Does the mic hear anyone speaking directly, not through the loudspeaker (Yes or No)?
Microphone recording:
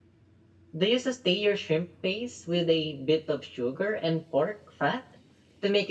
Yes